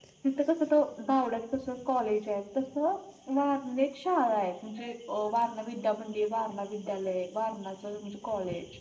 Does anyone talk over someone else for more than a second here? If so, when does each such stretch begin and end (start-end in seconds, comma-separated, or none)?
none